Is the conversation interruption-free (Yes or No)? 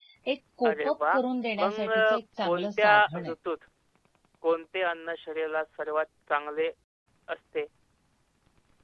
No